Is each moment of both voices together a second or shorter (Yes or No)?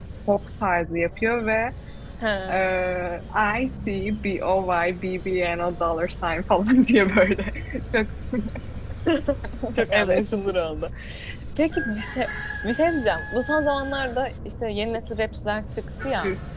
Yes